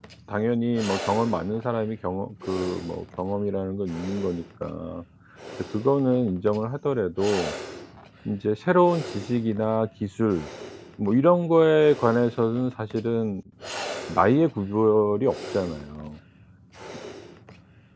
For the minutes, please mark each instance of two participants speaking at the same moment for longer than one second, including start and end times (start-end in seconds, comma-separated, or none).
none